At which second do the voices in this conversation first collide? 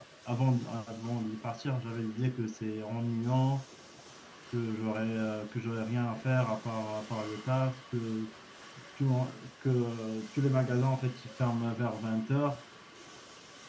none

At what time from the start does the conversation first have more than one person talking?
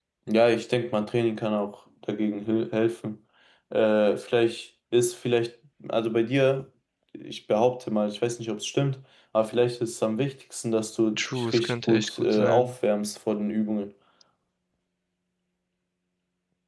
11.2 s

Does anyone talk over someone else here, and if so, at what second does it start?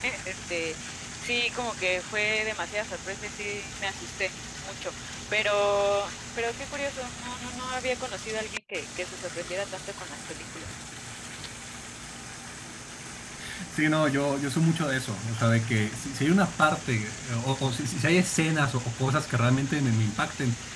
none

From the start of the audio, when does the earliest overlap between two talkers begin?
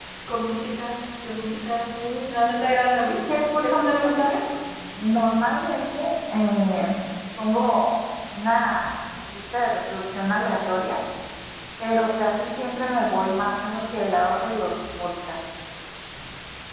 3.0 s

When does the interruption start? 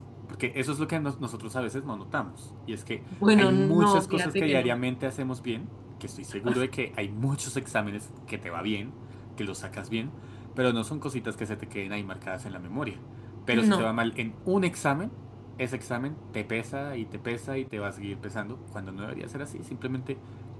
3.3 s

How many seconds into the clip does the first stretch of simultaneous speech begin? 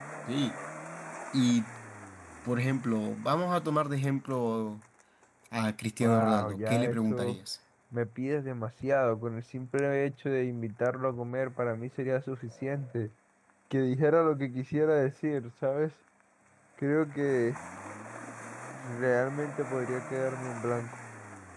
6.0 s

